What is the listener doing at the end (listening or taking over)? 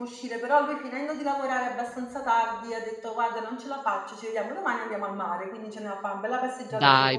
taking over